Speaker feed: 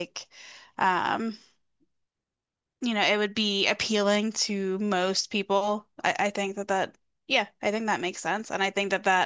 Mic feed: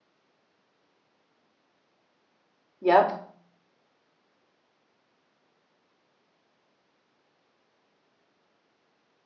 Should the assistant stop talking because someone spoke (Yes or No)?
Yes